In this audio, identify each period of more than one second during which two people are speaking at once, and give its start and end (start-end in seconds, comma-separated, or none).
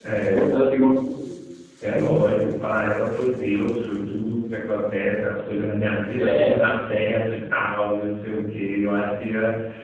none